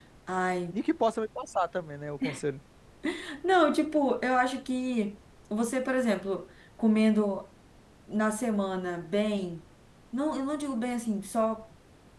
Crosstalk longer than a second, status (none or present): none